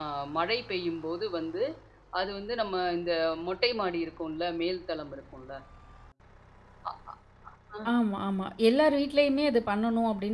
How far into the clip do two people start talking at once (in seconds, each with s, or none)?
none